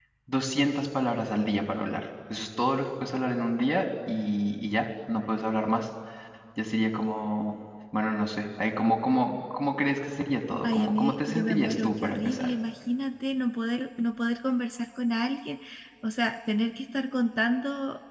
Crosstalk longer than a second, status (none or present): present